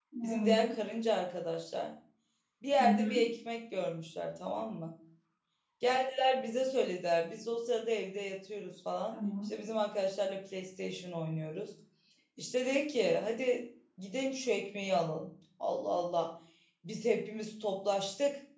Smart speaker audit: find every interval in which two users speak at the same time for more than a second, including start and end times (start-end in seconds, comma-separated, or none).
none